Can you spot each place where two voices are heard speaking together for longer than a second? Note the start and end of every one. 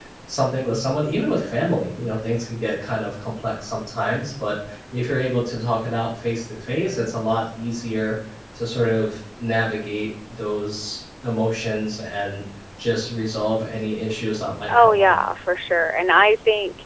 none

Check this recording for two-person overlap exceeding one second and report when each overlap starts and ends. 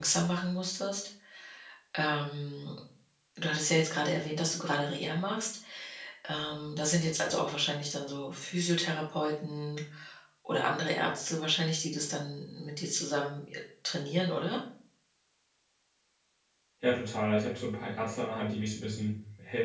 none

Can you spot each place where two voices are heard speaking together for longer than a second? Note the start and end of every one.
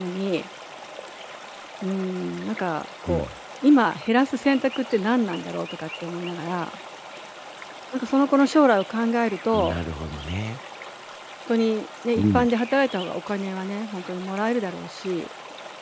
none

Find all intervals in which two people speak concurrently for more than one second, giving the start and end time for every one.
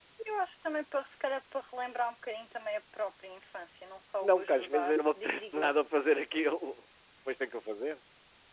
4.2-5.7

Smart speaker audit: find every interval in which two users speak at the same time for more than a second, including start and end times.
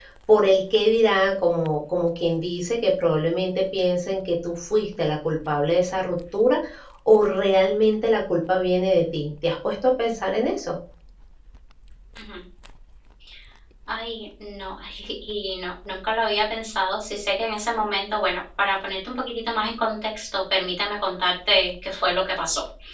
none

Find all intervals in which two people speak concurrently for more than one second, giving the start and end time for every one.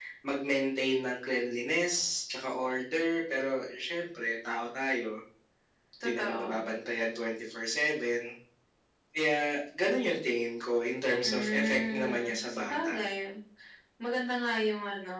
11.2-13.0

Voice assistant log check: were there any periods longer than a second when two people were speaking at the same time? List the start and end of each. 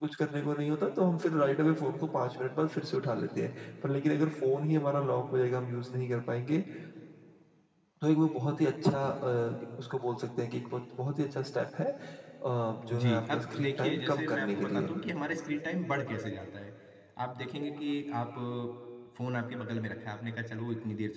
12.9-14.9

